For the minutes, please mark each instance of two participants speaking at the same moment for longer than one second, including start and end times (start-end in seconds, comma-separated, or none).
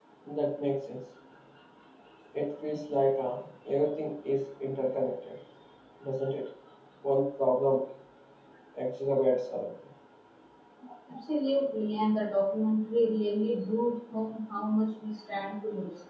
none